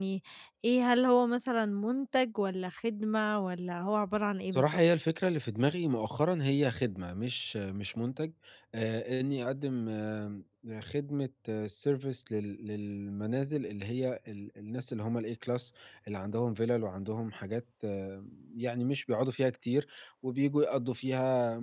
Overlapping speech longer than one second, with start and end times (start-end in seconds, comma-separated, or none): none